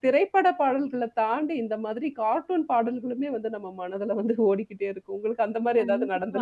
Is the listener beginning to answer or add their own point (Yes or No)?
Yes